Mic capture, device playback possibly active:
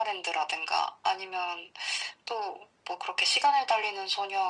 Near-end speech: none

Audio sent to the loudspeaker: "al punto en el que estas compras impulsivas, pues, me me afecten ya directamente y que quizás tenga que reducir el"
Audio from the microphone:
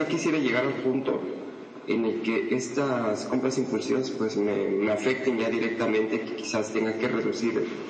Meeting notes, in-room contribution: none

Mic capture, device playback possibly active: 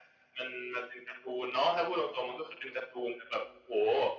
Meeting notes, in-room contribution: none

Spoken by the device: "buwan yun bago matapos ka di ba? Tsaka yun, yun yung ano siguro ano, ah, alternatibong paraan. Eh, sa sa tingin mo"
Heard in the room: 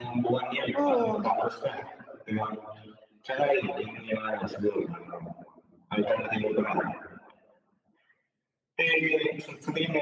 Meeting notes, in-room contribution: present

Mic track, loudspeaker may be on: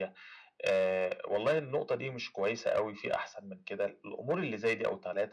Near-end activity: none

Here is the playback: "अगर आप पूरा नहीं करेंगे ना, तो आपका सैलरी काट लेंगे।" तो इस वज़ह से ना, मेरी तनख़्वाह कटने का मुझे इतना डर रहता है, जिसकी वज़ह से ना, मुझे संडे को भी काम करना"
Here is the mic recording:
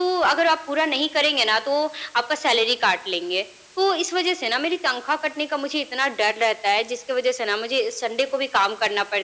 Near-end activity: none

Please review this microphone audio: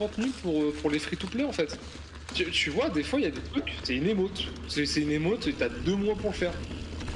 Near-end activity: none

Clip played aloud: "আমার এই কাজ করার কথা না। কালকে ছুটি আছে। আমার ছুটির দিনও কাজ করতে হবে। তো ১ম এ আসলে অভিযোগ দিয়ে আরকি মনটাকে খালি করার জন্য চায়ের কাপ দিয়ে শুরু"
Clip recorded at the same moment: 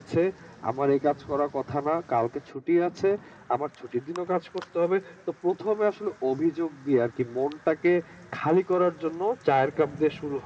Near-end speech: none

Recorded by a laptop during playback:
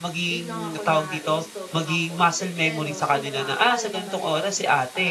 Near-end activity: present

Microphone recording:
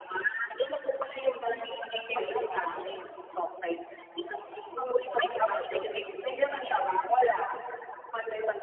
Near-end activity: none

